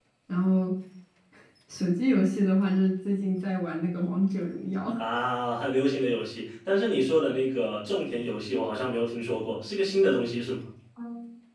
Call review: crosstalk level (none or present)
none